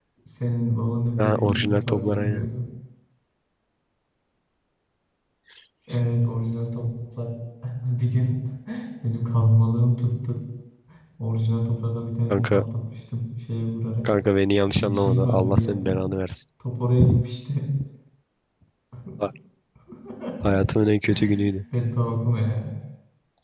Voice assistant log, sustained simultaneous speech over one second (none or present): present